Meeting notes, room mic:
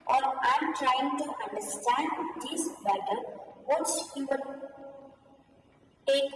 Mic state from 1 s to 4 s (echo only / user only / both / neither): echo only